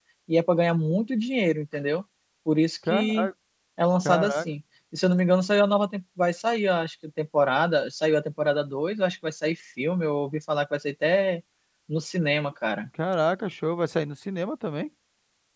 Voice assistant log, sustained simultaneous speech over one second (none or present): none